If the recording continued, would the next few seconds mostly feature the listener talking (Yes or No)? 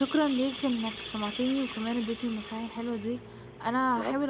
No